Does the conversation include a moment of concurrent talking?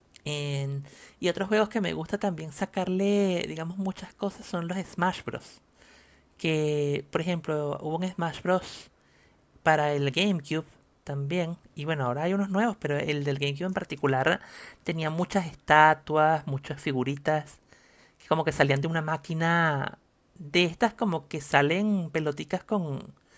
No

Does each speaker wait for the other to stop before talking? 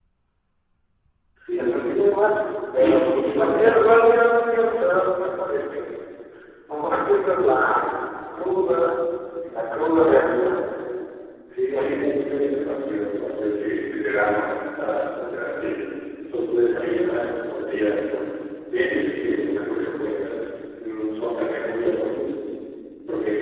No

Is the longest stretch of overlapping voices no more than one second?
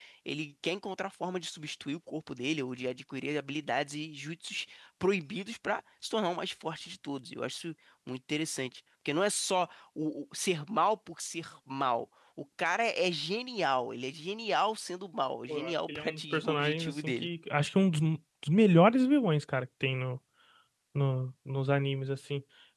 No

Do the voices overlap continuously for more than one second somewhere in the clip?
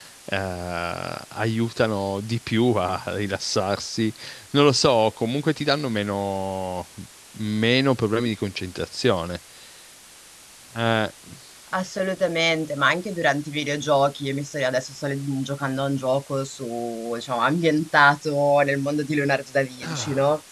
No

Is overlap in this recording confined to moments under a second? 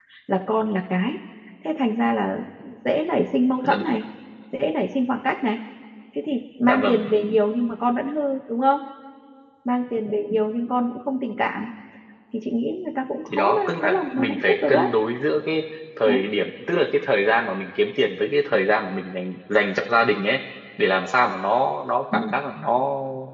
No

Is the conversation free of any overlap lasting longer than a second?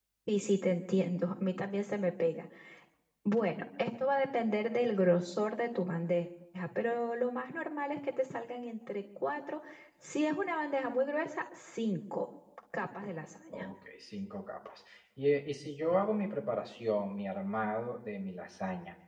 Yes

